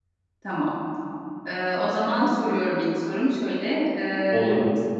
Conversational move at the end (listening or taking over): listening